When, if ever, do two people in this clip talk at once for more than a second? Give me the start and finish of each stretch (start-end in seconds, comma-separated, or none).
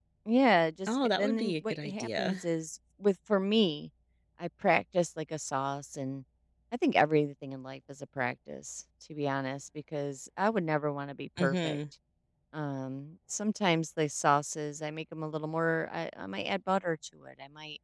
0.9-2.4